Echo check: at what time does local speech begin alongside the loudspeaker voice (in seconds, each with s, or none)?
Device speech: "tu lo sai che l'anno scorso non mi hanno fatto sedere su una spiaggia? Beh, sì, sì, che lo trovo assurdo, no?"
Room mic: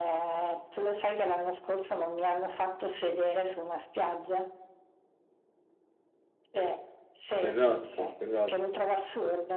7.4 s